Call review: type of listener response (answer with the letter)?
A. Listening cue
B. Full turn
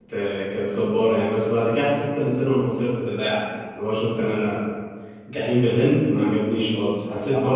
A